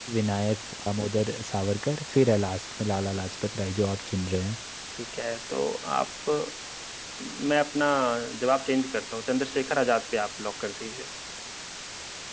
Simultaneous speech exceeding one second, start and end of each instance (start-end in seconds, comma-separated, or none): none